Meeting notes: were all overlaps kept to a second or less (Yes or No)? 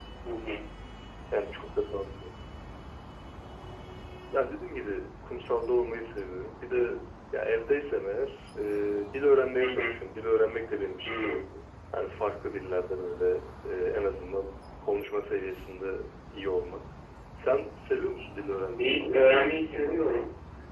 No